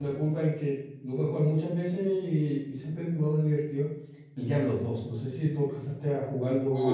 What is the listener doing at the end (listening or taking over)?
taking over